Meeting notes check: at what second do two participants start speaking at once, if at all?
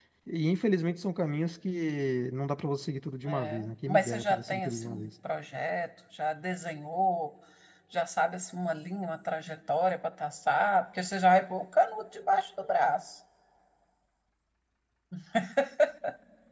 3 s

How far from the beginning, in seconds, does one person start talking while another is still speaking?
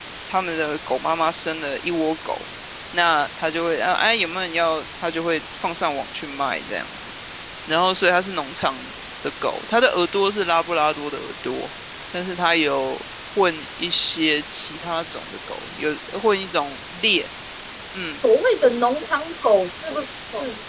none

